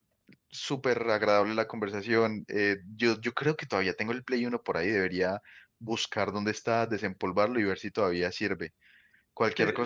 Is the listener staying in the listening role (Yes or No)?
Yes